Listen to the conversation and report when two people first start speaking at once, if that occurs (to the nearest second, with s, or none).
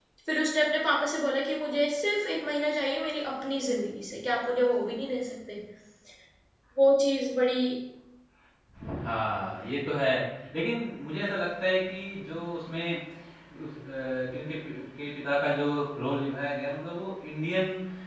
none